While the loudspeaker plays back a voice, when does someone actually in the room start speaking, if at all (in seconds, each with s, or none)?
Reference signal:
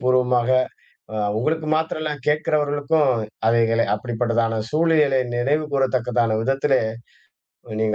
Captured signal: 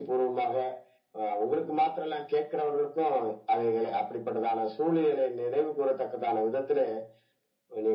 none